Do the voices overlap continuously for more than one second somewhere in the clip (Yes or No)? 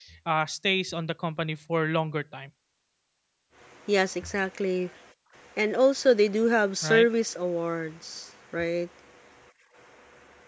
No